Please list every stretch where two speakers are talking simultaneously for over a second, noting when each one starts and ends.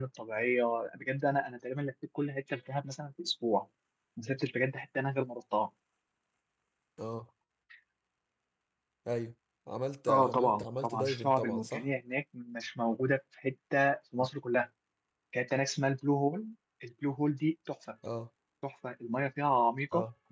10.1-11.8

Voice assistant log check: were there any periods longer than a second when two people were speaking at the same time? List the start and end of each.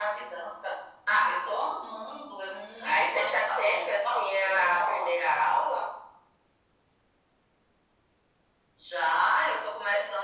2.8-5.6

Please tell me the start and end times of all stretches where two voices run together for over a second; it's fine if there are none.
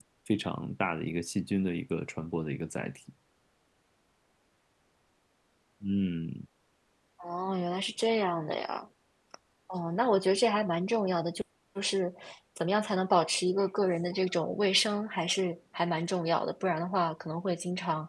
none

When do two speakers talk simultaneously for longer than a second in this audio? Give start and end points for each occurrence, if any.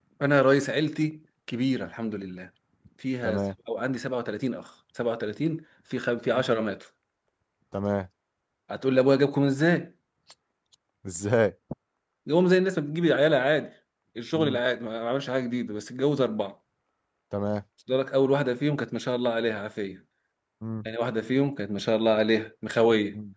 none

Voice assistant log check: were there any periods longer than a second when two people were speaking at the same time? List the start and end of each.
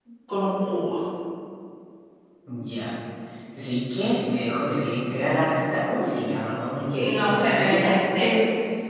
7.0-8.3

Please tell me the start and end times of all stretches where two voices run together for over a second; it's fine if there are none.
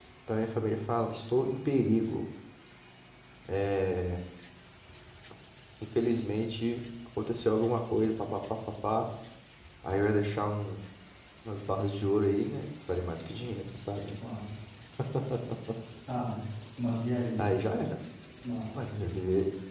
none

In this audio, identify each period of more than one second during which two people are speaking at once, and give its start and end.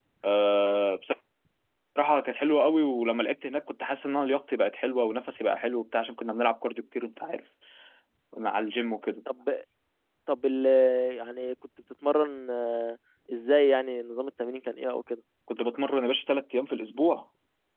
none

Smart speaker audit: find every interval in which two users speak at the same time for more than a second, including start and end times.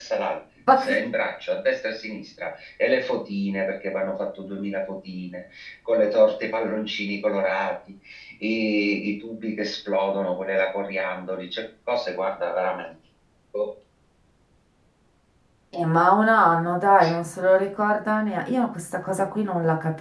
none

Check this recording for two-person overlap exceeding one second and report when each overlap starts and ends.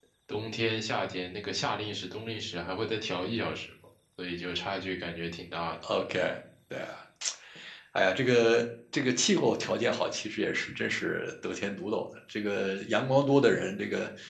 none

